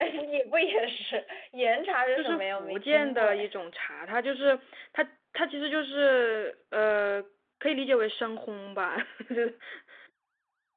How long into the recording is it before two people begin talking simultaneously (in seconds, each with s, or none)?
2.2 s